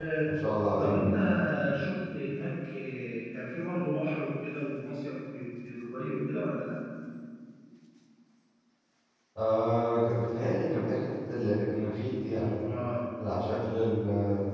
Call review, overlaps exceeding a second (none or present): none